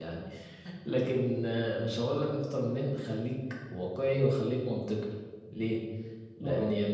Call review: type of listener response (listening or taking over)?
listening